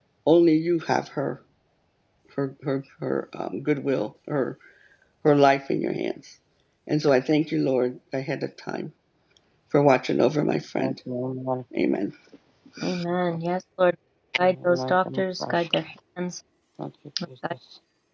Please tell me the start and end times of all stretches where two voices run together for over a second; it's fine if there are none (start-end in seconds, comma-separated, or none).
14.4-15.7